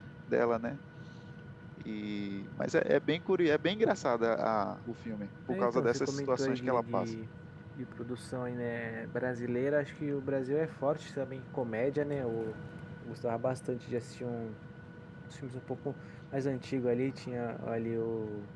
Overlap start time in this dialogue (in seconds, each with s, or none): 5.5 s